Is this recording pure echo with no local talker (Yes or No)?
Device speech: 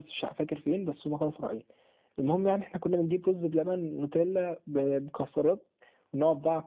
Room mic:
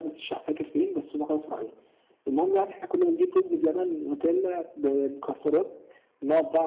Yes